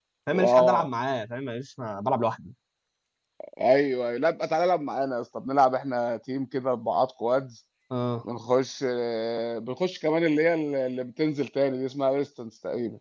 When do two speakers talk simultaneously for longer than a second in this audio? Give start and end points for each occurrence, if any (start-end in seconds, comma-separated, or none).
none